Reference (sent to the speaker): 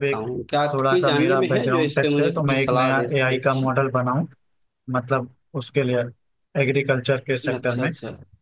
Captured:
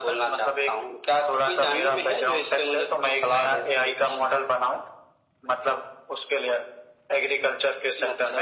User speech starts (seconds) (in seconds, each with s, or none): none